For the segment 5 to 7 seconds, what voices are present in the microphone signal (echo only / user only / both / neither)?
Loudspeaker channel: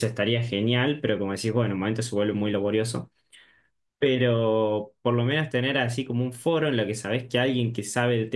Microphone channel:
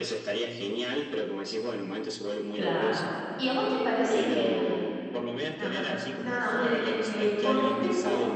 both